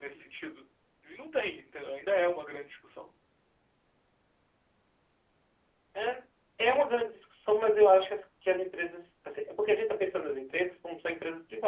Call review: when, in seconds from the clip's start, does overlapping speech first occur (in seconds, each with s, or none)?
none